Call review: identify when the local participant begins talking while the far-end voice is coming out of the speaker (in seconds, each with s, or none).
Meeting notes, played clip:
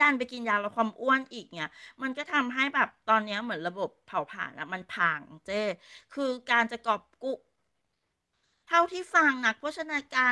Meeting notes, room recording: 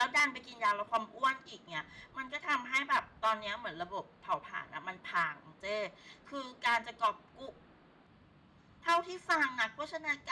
none